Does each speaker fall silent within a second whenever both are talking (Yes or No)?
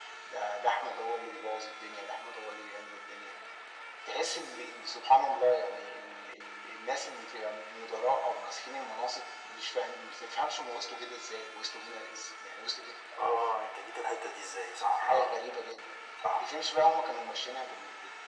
Yes